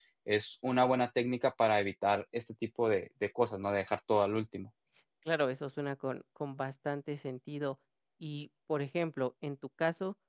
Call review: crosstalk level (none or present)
none